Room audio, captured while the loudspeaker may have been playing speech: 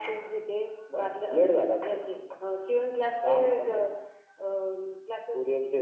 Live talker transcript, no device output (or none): none